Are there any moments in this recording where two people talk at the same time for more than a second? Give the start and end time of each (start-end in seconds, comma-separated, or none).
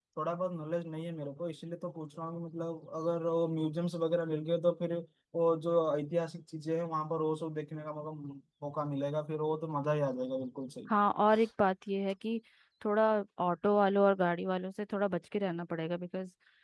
none